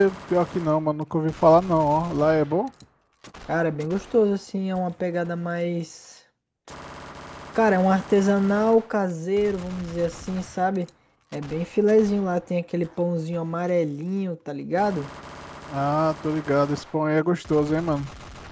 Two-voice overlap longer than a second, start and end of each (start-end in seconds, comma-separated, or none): none